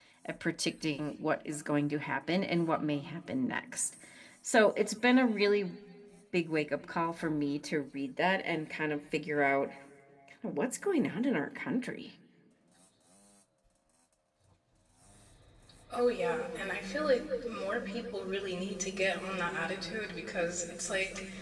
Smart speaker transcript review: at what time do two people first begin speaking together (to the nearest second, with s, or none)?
none